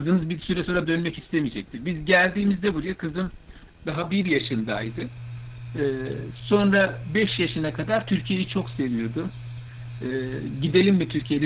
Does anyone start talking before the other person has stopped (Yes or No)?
No